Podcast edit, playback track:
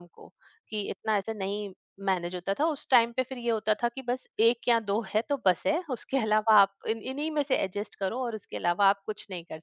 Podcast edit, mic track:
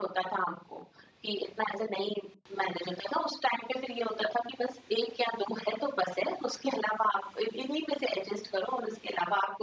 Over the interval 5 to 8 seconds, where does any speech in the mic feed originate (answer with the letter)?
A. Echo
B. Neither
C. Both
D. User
A